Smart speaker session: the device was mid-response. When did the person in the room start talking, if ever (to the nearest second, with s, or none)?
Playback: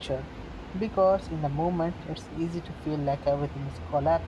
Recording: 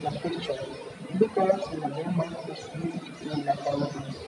none